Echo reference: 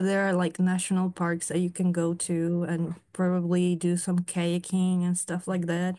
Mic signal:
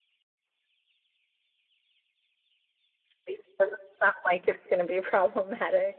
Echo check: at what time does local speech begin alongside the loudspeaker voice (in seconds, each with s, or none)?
3.3 s